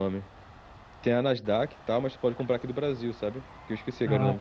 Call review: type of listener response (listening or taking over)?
taking over